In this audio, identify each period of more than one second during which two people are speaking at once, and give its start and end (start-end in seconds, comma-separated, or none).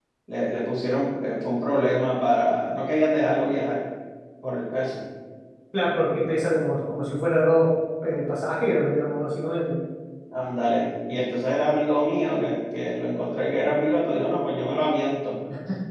none